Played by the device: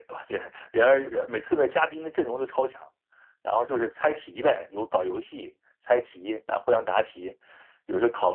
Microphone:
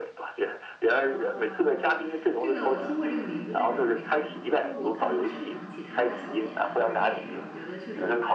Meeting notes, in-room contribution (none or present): present